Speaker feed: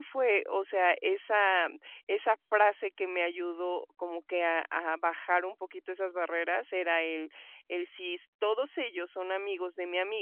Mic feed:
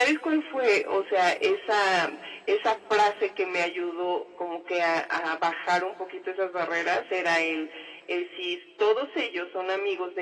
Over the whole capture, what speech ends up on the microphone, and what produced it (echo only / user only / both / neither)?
echo only